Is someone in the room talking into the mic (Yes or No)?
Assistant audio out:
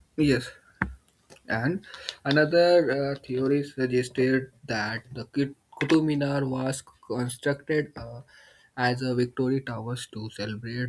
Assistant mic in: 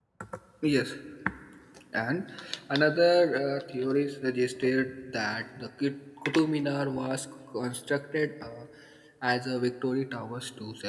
No